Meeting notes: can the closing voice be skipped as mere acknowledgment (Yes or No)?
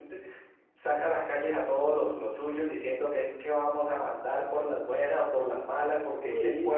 Yes